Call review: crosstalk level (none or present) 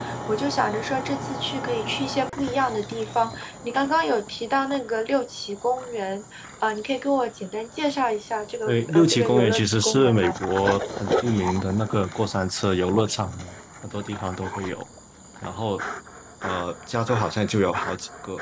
present